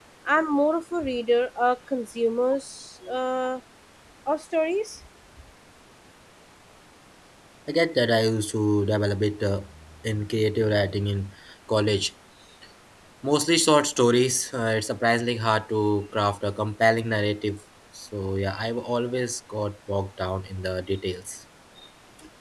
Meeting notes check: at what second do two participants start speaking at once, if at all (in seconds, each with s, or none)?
none